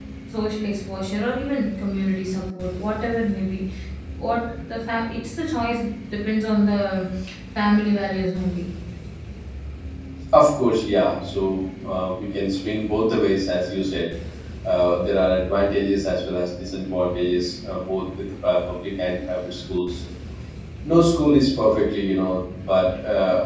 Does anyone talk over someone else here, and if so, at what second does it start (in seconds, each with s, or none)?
none